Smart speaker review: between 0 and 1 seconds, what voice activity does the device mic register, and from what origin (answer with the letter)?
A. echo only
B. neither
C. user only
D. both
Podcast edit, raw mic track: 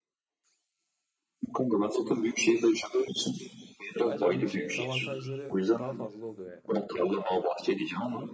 B